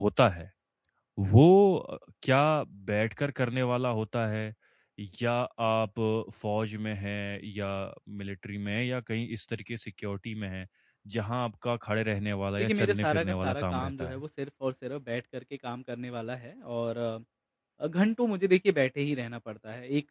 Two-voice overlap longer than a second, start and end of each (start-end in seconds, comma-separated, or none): 12.6-14.2